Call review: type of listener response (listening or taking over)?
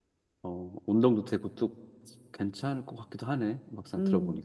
taking over